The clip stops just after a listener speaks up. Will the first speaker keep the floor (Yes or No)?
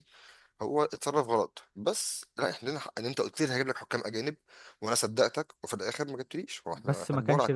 No